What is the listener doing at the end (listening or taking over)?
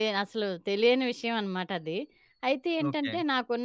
listening